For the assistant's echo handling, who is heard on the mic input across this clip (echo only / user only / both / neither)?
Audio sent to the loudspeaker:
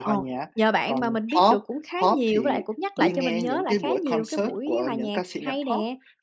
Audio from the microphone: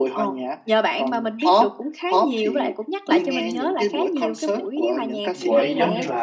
both